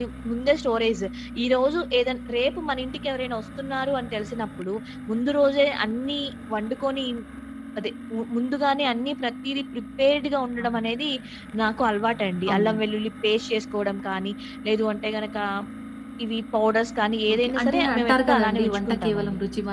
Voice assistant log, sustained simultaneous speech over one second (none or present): present